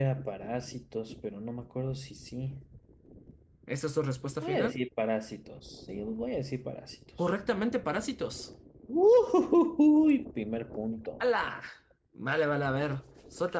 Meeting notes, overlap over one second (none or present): none